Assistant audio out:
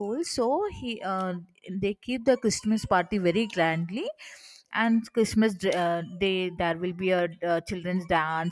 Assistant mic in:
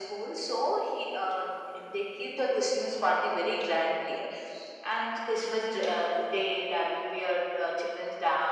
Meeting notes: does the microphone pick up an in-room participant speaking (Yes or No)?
No